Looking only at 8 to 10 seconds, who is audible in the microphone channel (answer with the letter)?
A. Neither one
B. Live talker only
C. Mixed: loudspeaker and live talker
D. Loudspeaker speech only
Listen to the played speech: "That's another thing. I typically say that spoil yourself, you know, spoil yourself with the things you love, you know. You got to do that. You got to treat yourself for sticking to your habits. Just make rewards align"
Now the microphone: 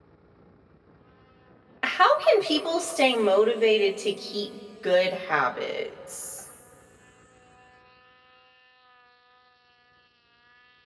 A